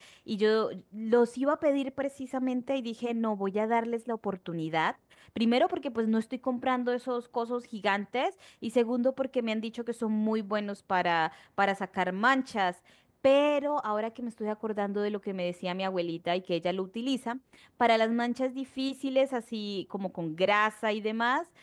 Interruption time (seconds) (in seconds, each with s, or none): none